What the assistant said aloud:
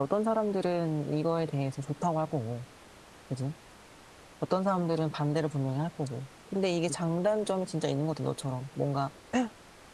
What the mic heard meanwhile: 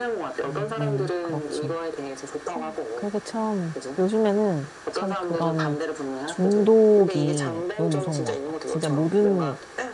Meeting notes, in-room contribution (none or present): present